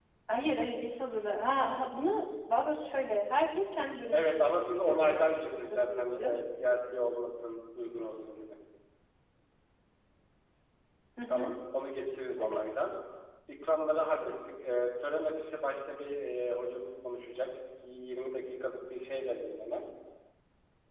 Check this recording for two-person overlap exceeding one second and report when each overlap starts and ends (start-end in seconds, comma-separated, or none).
4.1-6.3